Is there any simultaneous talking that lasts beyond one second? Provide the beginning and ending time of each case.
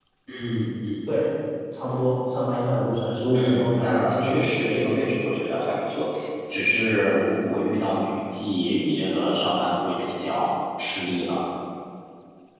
3.3-4.8

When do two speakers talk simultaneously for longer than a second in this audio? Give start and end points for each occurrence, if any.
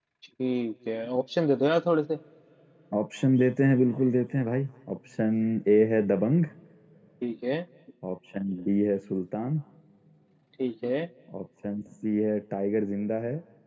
none

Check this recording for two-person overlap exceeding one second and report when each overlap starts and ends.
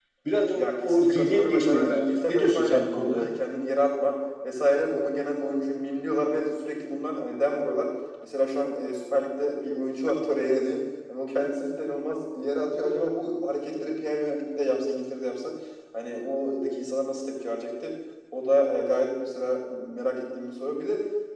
0.6-3.3

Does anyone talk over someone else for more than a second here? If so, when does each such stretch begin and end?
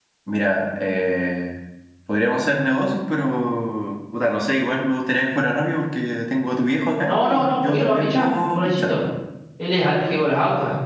7.1-9.0

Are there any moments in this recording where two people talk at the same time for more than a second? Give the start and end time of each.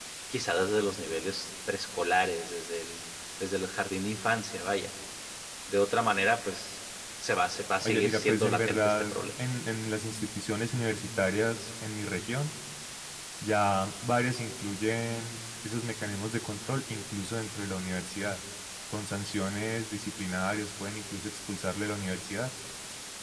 7.8-9.4

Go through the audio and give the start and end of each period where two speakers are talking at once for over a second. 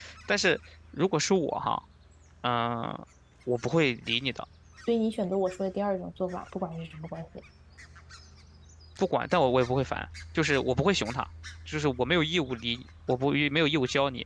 none

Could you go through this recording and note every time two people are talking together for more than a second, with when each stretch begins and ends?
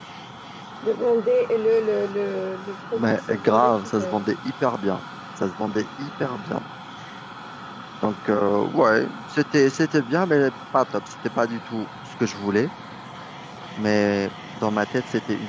2.9-4.3

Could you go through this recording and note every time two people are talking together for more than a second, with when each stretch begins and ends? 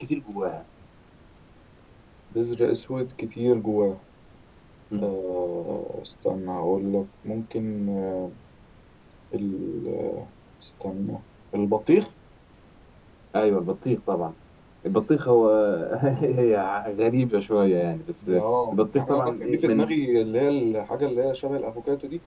18.7-19.9

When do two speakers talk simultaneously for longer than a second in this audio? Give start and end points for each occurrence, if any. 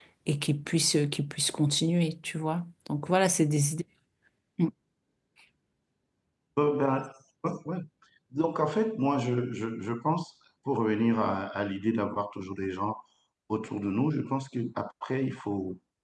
none

